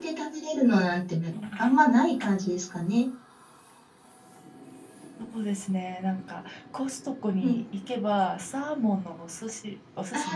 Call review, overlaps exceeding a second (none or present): none